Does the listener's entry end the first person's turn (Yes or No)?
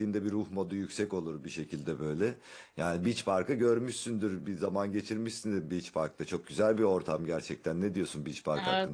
Yes